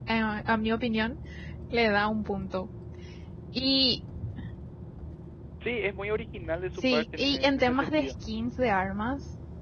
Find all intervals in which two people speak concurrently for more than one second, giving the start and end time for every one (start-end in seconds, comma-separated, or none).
6.7-8.1